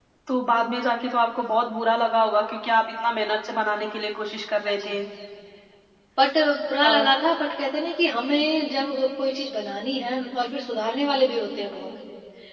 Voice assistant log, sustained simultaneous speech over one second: none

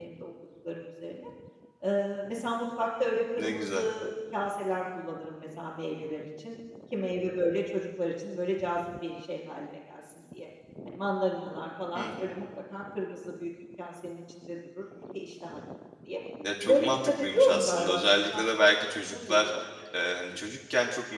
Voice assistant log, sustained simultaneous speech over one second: present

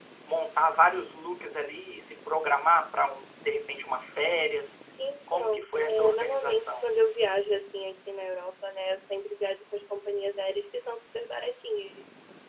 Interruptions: present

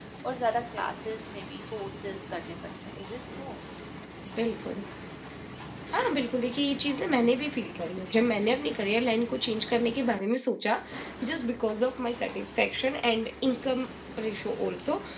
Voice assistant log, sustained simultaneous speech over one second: none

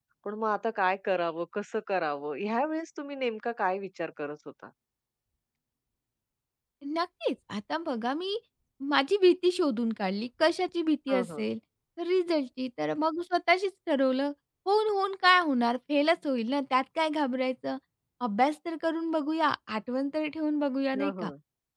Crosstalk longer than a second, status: none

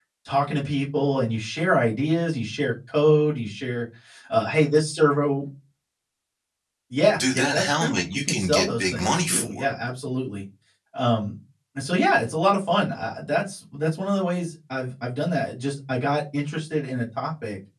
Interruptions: present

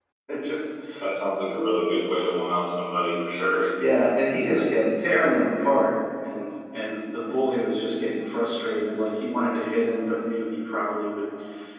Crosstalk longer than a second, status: none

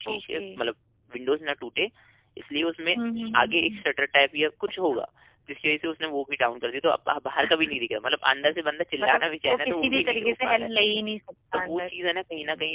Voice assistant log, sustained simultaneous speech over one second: present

